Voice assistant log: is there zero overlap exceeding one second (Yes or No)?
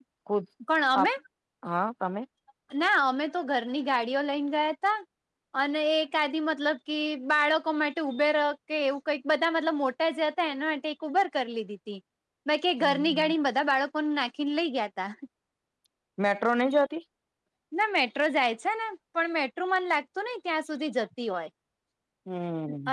Yes